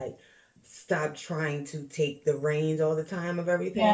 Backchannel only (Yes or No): Yes